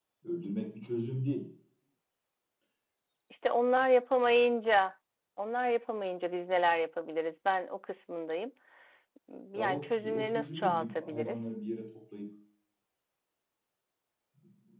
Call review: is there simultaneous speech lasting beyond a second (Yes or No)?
Yes